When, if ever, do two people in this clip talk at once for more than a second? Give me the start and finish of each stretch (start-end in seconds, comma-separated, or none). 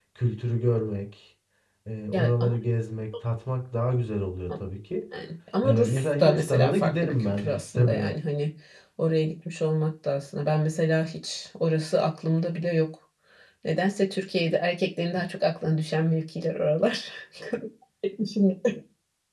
5.6-8.1